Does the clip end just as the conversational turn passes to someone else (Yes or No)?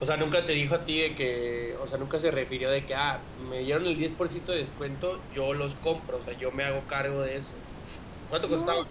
No